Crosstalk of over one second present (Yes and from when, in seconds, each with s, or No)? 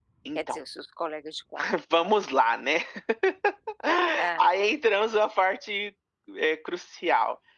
No